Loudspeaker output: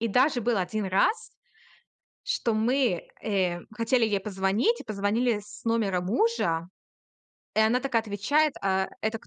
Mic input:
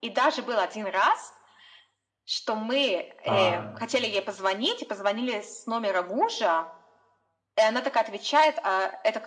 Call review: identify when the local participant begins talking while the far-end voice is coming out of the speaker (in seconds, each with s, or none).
3.2 s